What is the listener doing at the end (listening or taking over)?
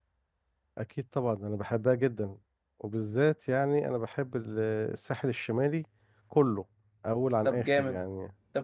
taking over